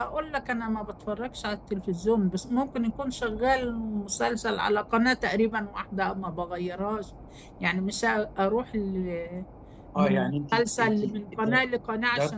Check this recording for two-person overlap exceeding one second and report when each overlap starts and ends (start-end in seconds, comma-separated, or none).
10.0-11.6